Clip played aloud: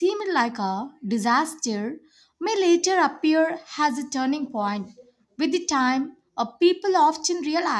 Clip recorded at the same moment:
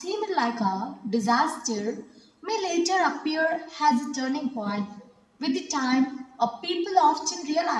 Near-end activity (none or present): none